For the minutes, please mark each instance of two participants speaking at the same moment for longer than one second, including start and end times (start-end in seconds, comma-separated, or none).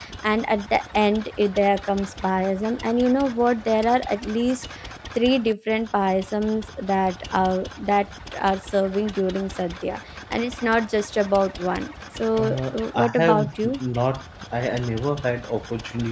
12.4-13.7